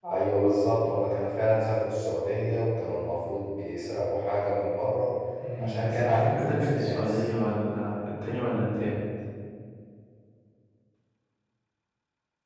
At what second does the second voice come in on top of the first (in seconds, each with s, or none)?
5.6 s